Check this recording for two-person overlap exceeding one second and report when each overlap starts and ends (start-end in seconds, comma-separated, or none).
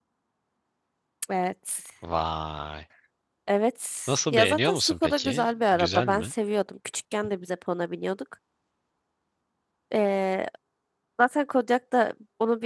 4.3-6.3